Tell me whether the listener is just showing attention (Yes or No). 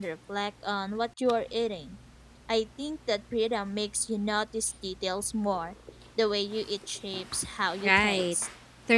No